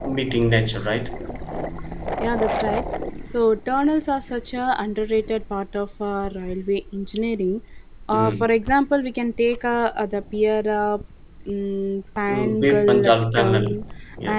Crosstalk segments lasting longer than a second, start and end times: 12.3-13.7

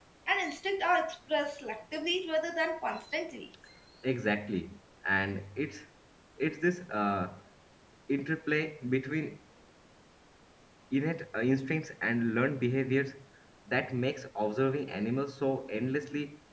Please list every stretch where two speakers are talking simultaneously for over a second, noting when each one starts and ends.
none

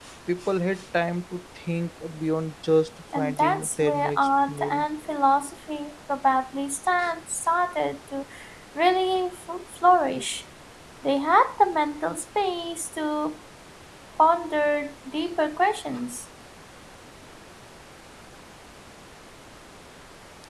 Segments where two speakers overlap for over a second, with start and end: 3.2-4.8

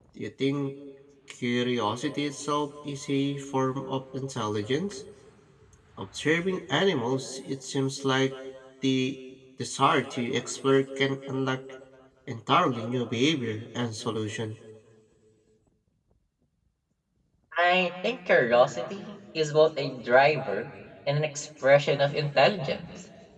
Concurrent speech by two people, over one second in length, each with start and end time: none

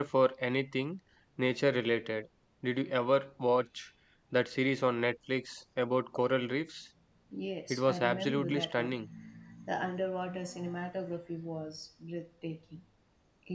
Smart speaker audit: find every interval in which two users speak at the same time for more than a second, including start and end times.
7.7-8.9

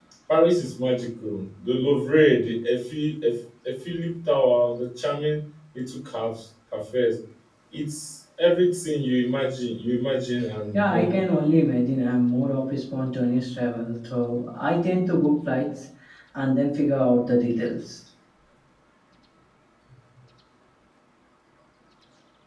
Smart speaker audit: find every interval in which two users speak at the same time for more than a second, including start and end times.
none

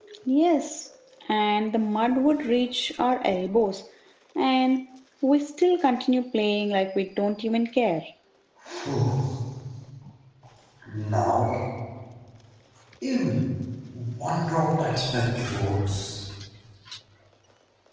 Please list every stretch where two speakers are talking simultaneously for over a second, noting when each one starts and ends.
none

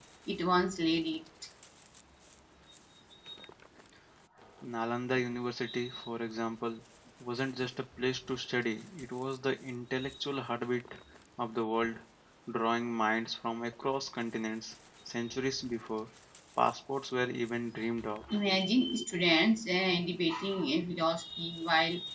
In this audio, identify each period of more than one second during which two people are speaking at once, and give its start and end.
none

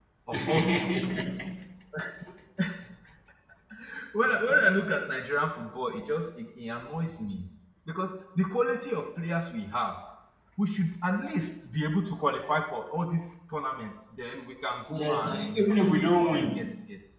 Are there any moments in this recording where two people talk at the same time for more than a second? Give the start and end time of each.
14.9-16.6

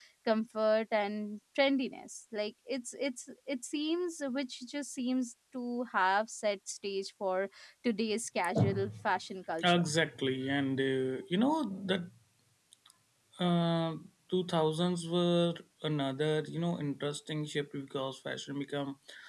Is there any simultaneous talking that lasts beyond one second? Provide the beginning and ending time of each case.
none

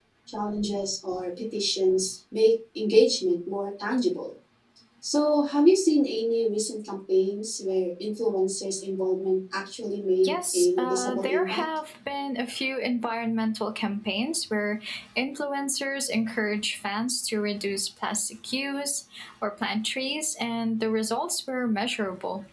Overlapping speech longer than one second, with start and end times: 10.2-11.6

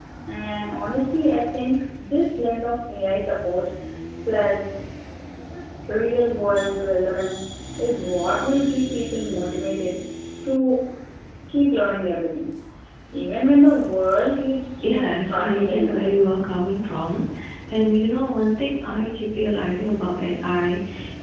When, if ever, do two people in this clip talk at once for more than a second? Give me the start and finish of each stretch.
14.8-16.1

